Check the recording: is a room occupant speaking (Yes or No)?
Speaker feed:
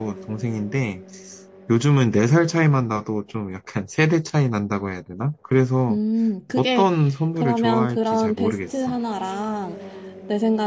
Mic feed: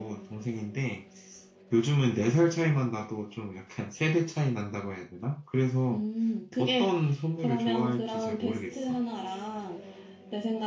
No